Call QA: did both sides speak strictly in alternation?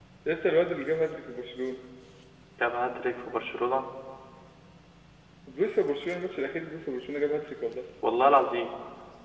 Yes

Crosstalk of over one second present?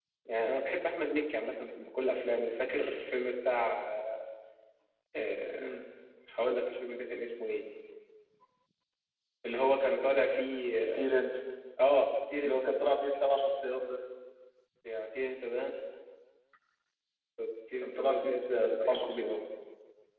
Yes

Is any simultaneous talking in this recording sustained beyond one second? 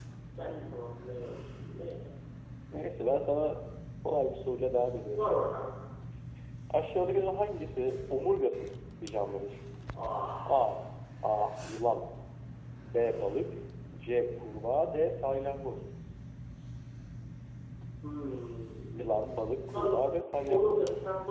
No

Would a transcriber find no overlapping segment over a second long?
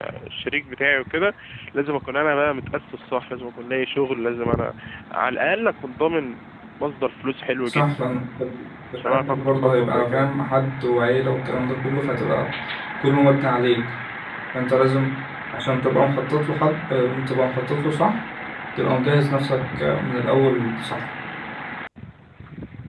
No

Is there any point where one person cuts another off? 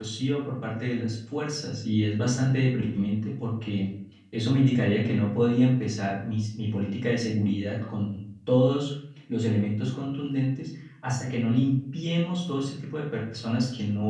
No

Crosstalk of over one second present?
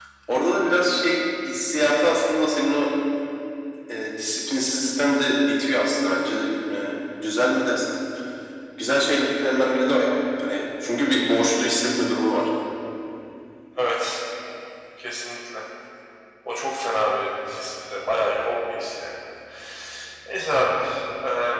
No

